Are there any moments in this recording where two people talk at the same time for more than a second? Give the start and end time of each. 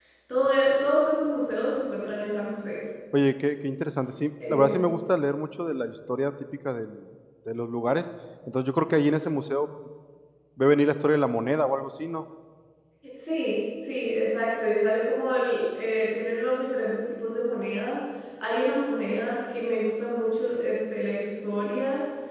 none

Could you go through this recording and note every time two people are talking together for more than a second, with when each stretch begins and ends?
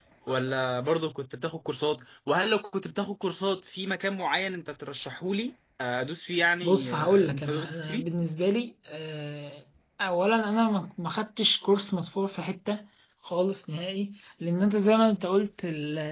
6.6-8.1

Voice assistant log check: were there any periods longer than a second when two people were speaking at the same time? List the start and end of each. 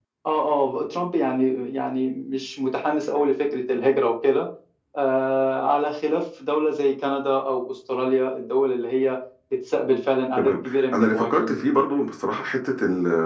10.4-11.7

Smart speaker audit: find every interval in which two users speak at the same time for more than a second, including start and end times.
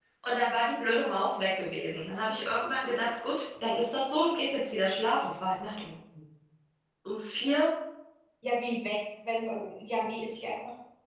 none

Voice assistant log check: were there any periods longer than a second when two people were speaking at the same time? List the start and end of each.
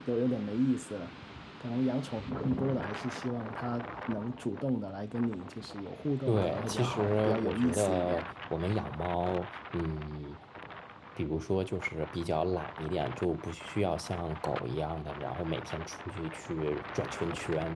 6.3-8.3

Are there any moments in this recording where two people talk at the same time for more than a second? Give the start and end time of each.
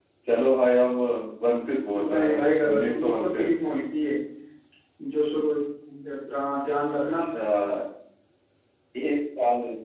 1.9-3.6

